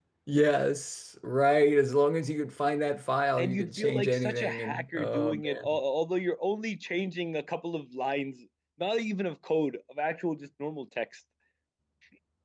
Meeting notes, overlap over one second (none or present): present